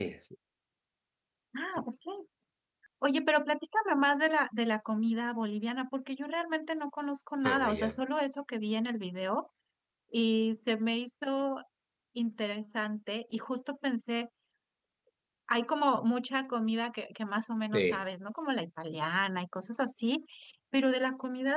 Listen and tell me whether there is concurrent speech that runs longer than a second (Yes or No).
No